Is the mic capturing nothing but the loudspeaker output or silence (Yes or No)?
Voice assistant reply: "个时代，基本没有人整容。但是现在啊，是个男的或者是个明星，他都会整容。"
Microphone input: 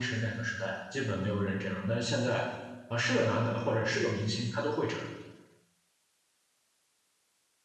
Yes